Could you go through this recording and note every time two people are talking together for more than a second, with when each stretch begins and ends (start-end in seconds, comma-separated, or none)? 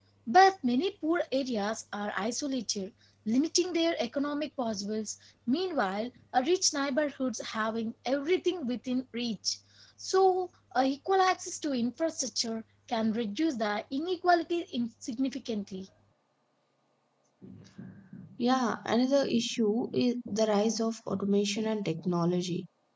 none